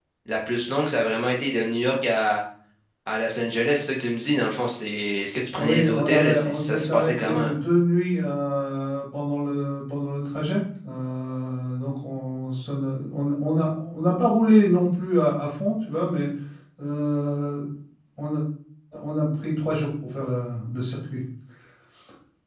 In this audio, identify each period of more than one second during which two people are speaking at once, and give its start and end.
5.5-7.5

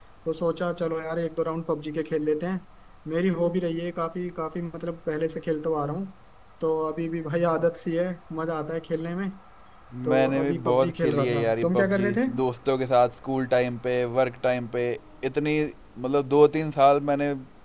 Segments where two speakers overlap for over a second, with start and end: 10.1-12.2

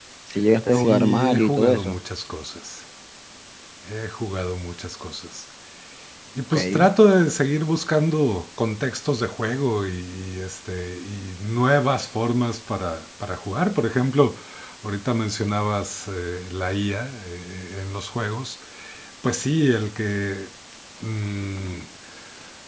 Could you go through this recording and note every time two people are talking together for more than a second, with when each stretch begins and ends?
0.7-2.0

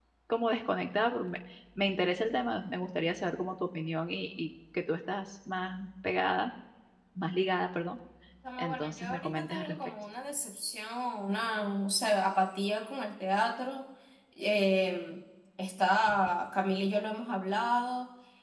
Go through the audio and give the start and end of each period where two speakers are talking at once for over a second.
8.6-9.8

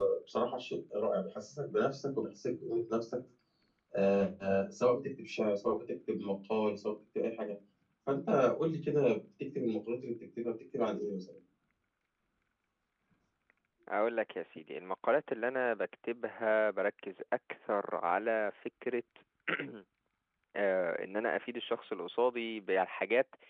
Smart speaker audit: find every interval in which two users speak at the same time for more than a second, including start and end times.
none

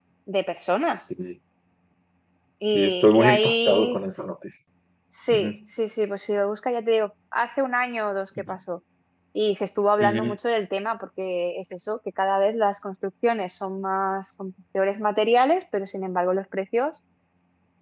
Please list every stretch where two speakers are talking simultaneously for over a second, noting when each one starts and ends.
2.7-4.0

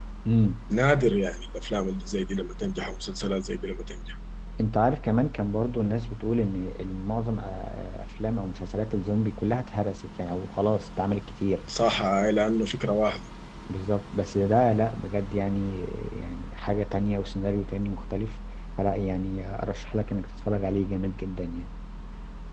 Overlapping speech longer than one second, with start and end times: none

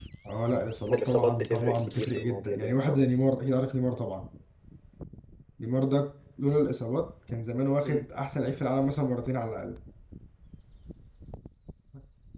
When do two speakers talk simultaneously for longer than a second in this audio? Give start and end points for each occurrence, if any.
0.8-3.0

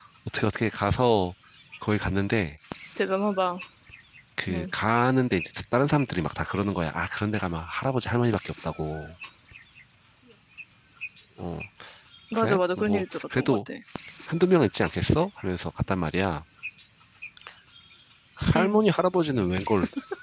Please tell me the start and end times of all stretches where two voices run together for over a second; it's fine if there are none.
12.3-13.6

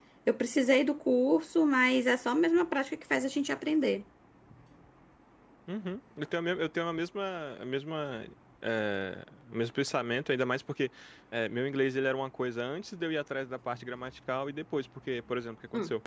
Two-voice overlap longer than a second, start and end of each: none

